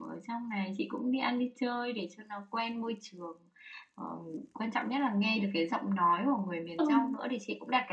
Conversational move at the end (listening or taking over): listening